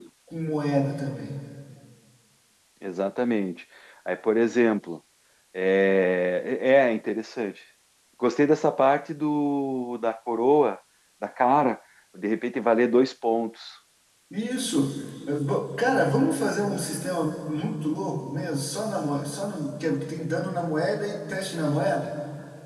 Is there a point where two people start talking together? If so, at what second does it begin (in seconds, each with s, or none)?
none